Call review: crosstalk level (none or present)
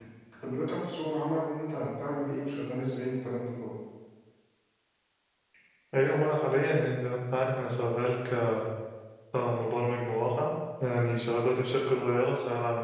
none